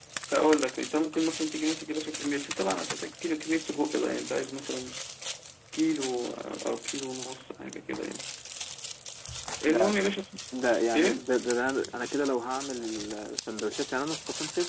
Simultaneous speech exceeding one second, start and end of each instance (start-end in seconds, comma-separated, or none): none